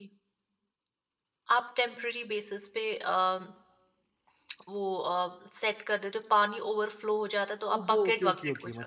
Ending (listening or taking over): taking over